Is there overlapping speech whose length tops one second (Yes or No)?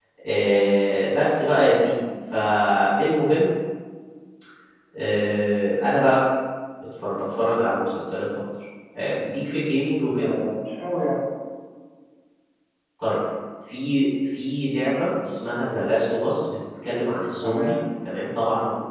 No